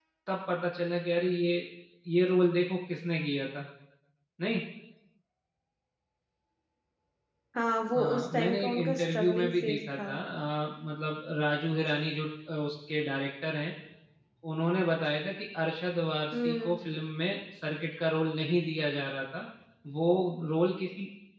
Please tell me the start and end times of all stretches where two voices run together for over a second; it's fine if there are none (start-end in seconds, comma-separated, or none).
8.0-10.1